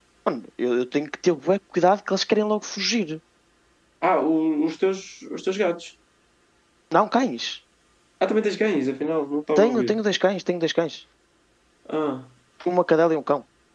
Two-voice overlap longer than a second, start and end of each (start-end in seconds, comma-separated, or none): none